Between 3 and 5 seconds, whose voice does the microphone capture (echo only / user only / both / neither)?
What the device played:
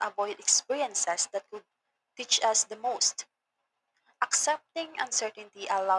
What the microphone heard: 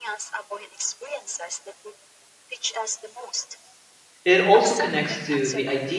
both